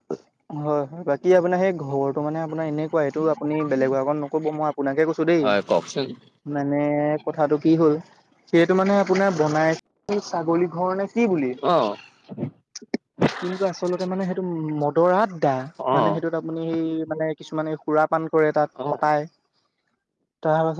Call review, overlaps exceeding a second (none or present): none